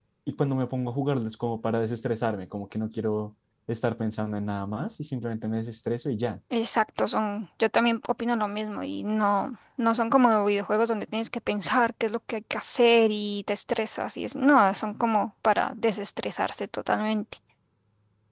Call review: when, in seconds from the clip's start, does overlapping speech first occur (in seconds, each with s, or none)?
none